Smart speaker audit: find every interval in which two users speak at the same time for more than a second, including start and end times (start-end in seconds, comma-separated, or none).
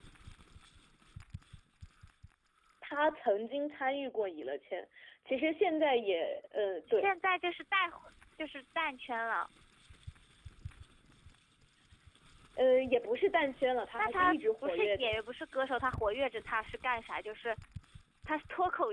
14.0-15.2